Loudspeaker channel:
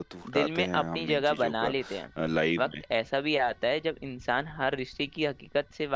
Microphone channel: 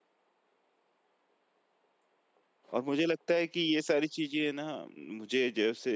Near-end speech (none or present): present